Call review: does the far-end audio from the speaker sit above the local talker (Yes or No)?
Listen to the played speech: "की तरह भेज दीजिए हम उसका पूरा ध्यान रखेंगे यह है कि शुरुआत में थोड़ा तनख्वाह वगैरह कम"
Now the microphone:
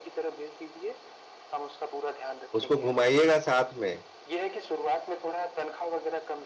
No